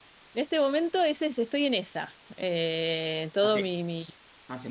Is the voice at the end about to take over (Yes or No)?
Yes